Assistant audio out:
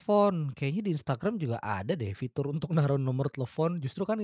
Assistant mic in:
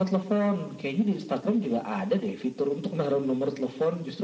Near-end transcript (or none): none